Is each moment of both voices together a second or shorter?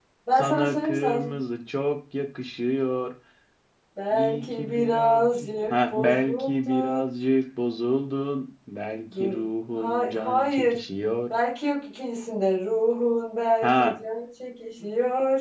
No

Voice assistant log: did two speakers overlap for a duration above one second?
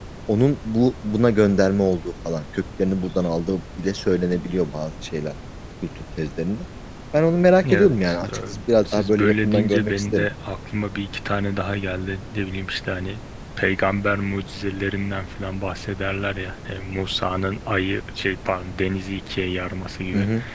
Yes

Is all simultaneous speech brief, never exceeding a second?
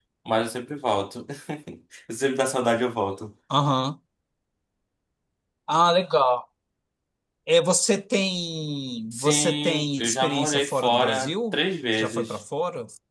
No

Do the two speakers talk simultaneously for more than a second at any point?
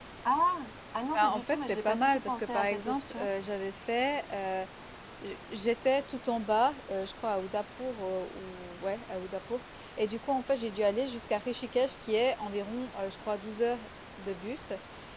Yes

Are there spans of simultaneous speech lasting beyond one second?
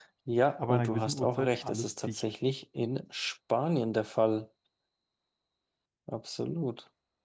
Yes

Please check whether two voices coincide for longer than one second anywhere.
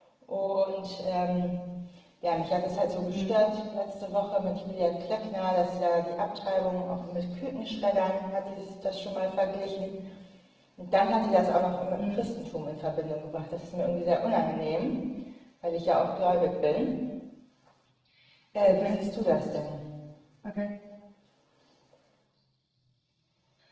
No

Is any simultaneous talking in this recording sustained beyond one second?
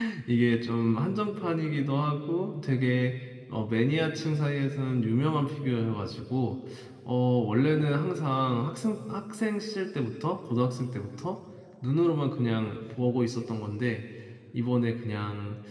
No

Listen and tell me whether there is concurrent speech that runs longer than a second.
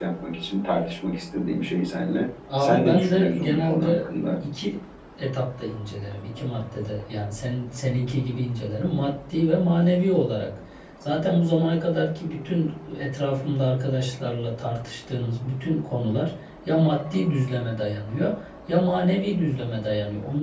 Yes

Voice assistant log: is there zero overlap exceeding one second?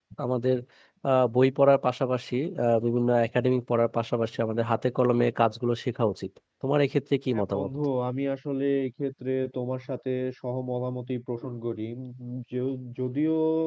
Yes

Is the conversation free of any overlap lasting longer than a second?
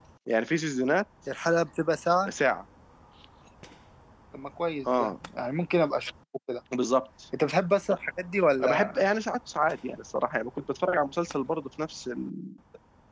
Yes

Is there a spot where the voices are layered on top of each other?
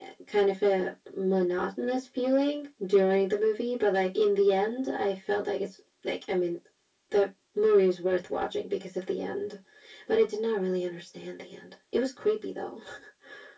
No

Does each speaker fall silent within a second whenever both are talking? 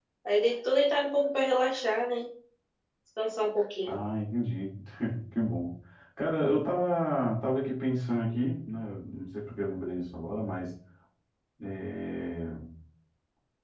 Yes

